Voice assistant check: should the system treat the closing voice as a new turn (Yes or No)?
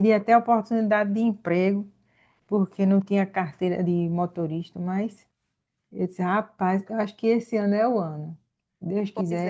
Yes